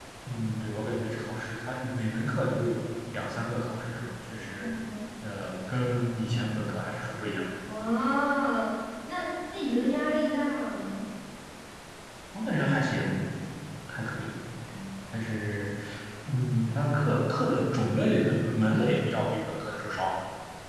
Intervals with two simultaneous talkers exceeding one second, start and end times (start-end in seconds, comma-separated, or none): none